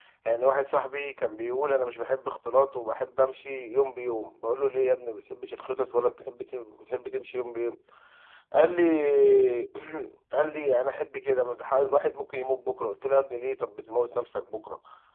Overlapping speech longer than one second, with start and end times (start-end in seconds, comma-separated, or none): none